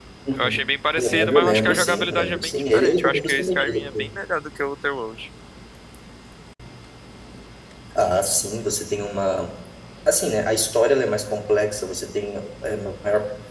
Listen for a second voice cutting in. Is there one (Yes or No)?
Yes